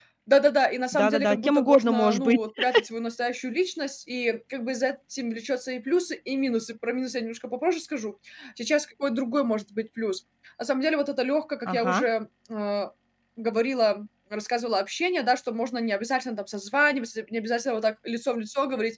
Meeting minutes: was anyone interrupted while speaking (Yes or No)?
Yes